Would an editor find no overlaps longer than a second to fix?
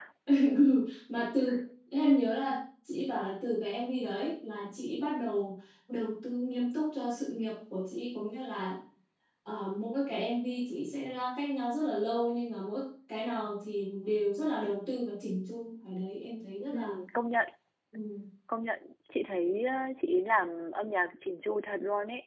Yes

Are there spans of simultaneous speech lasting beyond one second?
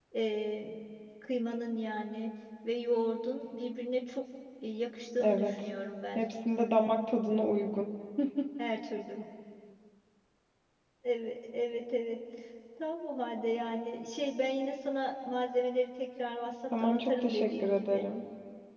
Yes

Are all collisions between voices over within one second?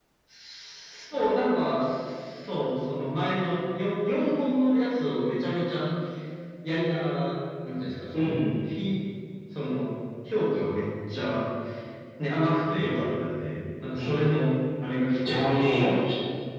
Yes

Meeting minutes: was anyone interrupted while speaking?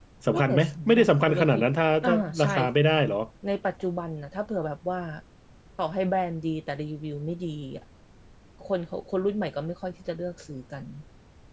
Yes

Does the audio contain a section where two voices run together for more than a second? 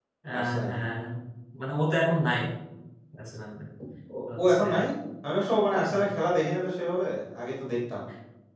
No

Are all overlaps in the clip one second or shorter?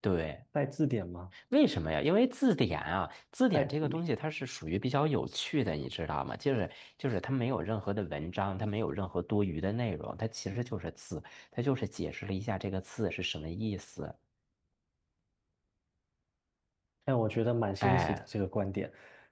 Yes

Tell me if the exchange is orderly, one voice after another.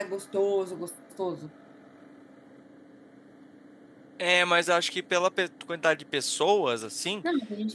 Yes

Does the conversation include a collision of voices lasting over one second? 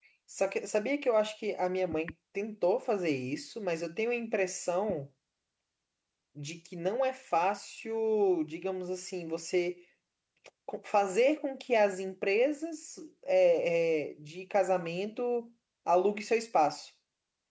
No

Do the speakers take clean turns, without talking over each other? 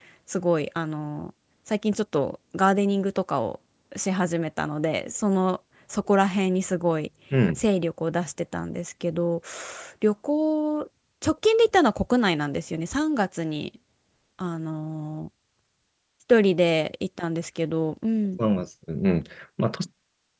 Yes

